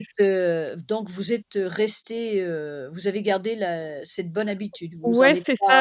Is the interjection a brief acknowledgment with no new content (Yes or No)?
No